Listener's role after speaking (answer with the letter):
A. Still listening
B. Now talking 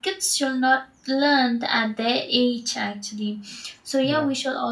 A